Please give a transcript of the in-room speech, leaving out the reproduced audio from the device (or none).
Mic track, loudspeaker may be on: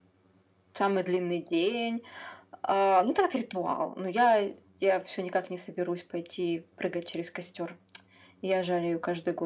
none